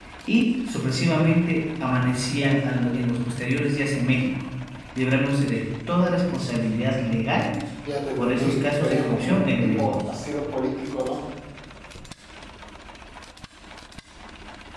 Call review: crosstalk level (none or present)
present